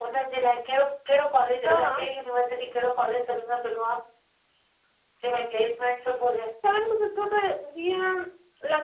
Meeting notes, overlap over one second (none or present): none